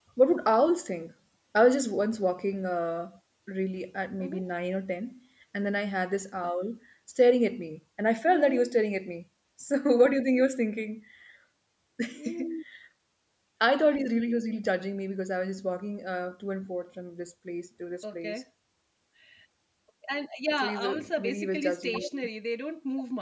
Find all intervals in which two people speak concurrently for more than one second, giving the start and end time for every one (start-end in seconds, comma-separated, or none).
20.6-22.3